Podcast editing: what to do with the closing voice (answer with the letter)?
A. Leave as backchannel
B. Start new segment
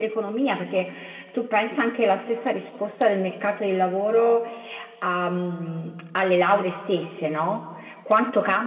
A